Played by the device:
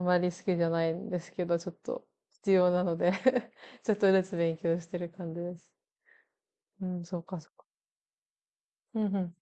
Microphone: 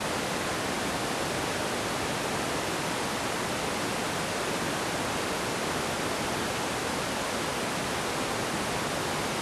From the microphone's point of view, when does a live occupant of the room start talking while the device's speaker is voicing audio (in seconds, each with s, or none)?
none